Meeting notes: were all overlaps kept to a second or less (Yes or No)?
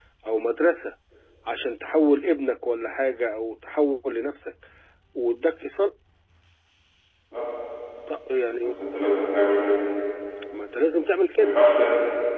Yes